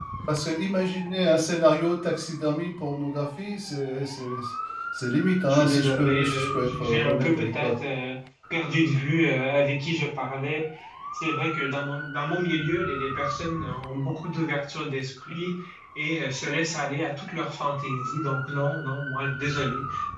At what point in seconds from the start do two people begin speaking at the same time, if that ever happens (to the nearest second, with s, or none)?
5 s